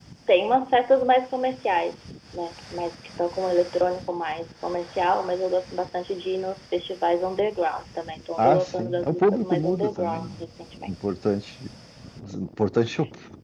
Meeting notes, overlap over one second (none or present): present